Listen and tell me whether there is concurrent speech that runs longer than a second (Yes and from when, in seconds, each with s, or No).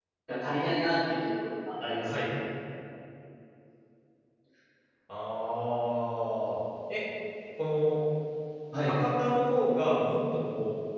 No